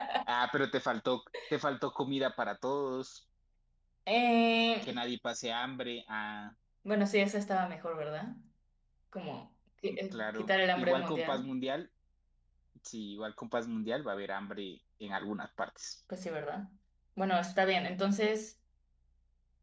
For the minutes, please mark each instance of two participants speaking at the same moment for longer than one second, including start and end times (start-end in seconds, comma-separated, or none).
10.1-11.5